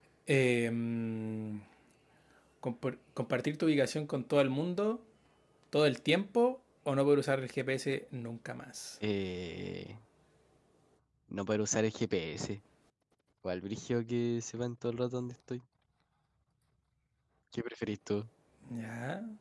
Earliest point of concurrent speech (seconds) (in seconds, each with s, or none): none